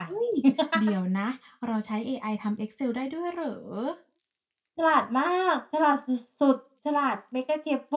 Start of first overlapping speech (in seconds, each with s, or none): none